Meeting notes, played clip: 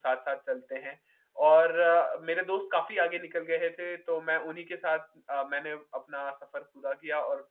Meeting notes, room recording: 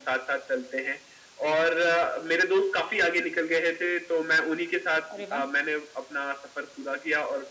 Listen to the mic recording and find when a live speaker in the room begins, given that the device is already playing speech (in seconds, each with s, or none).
5.1 s